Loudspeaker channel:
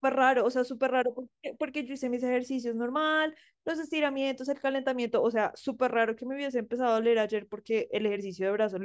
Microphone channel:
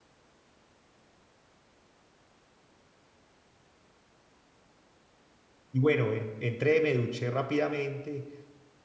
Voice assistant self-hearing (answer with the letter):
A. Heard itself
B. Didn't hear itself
B